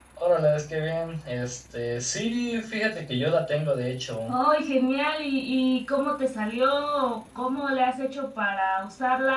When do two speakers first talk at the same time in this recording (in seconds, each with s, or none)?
none